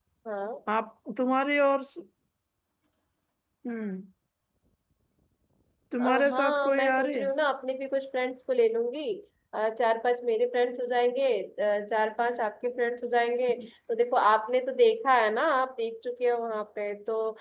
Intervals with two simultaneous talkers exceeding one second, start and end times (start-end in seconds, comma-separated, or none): 6.0-7.3